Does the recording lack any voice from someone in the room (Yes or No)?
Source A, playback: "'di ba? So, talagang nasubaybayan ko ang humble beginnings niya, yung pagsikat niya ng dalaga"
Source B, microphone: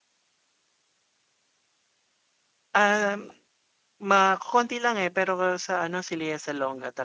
No